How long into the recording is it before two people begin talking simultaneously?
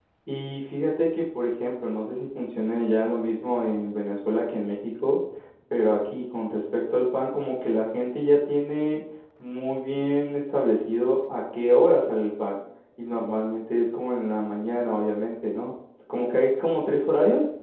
none

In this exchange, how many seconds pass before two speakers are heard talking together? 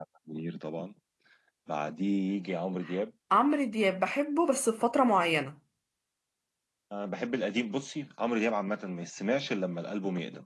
none

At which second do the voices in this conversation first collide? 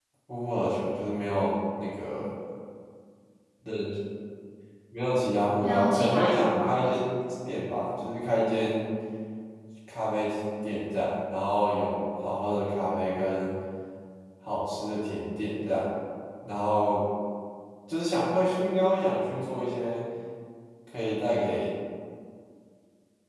5.6 s

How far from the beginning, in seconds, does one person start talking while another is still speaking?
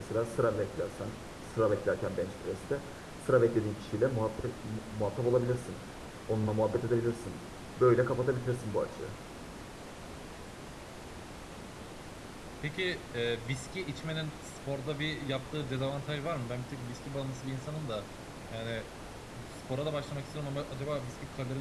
none

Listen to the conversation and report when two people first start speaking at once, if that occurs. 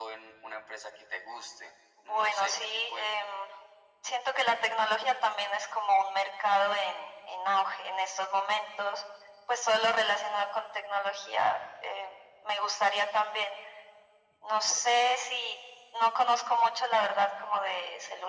2.0 s

